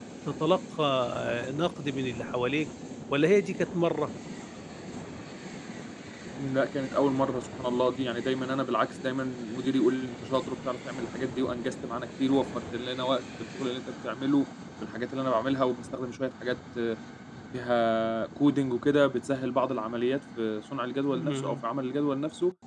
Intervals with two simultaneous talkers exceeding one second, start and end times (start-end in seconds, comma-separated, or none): none